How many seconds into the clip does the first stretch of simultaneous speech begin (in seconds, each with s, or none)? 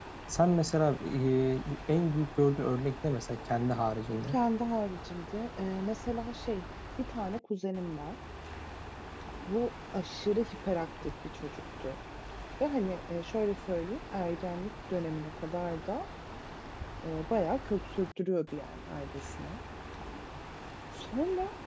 none